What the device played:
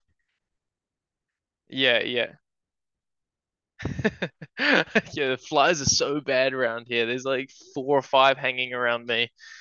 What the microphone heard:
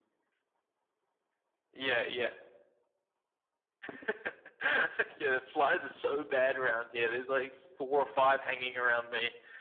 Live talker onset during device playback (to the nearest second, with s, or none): none